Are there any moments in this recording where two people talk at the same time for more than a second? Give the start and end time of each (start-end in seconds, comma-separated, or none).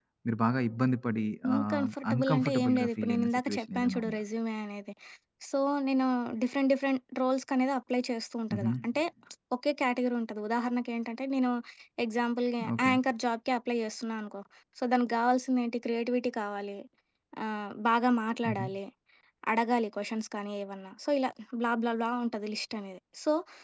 1.4-4.2